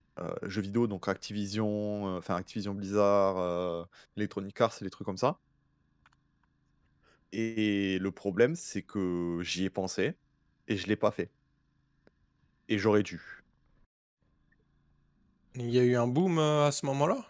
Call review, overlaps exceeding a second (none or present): none